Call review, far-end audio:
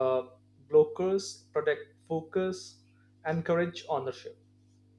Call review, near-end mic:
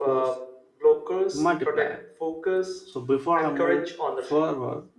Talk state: both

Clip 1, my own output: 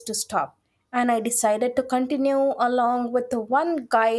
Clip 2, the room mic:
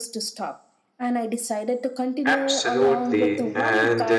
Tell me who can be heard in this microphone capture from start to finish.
both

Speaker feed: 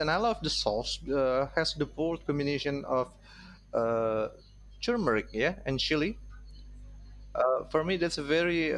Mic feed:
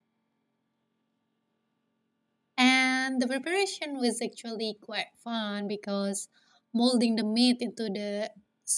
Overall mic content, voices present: user only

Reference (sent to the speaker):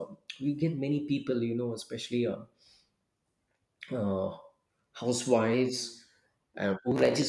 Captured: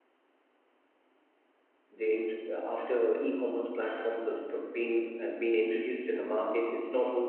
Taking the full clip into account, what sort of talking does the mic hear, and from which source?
user only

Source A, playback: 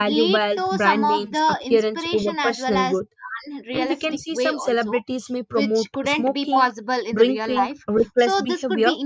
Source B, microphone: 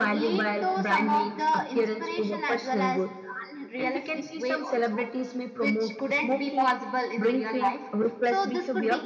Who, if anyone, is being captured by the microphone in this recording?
echo only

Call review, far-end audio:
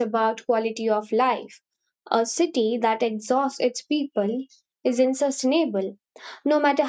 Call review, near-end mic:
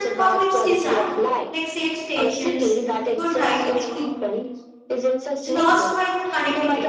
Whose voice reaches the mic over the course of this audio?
both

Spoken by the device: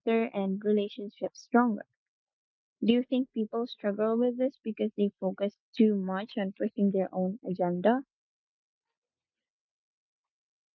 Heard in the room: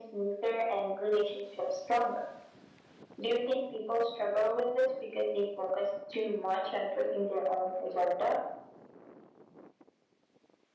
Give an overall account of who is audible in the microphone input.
echo only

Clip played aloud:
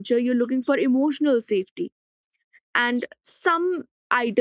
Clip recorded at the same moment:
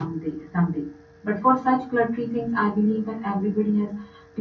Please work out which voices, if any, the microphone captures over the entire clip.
user only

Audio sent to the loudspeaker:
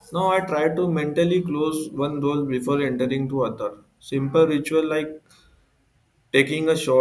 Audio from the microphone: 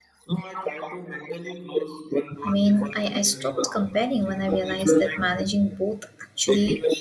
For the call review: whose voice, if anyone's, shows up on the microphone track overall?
both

